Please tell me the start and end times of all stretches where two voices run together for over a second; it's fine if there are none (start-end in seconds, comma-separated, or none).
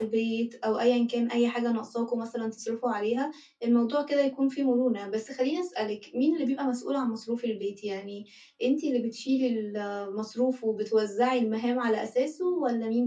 none